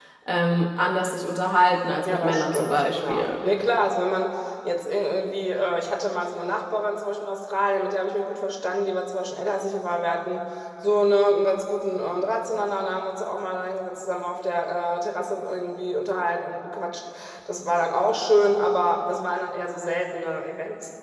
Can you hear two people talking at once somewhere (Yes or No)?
Yes